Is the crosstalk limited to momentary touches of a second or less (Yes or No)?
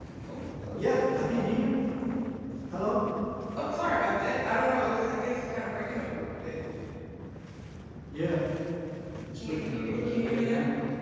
No